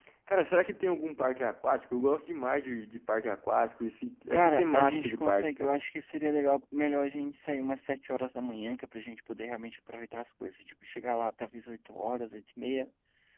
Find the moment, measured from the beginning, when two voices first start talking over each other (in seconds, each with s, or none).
4.3 s